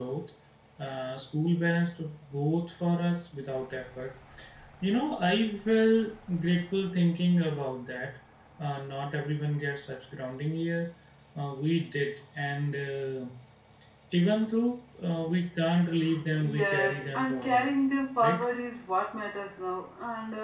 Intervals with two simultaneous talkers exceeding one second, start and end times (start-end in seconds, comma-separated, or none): 16.4-17.7